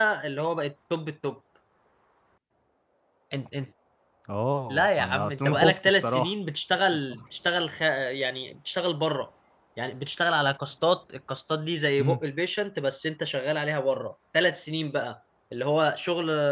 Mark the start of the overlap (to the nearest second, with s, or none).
5 s